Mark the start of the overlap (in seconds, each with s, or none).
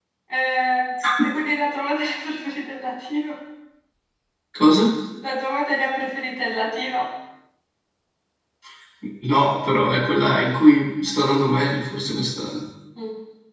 none